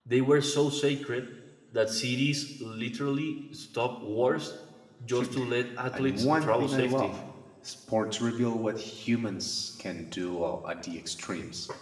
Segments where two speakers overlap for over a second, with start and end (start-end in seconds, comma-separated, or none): 5.9-7.2